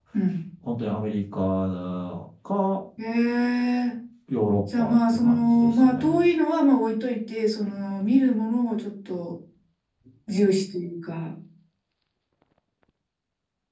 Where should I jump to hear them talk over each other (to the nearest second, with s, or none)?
5 s